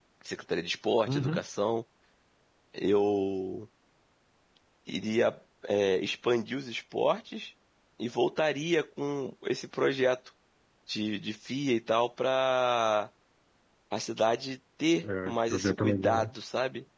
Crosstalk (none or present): present